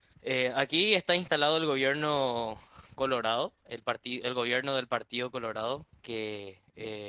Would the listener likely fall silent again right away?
Yes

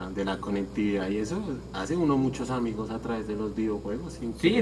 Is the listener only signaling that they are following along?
No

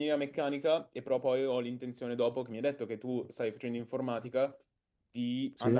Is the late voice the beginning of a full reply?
No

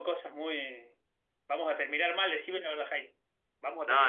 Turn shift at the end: Yes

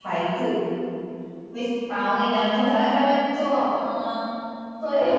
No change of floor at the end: No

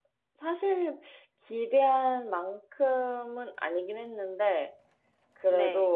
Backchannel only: Yes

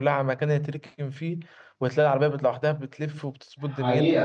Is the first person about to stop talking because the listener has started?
Yes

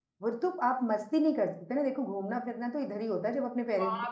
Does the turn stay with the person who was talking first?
No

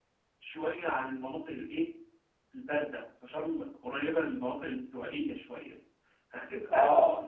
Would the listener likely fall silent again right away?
Yes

